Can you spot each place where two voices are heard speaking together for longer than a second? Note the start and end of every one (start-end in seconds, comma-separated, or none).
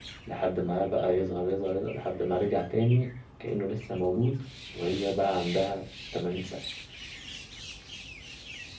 none